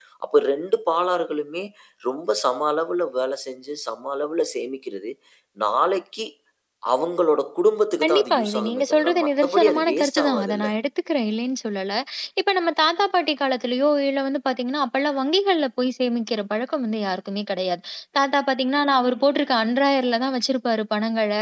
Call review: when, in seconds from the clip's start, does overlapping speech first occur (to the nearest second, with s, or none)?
8 s